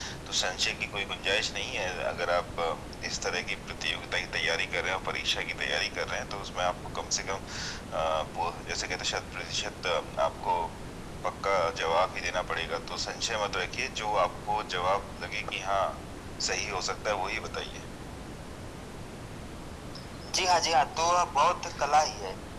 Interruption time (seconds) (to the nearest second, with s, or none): none